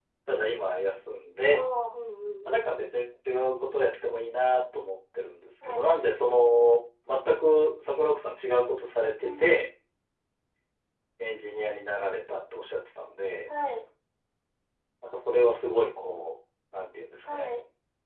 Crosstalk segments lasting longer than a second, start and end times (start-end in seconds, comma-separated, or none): none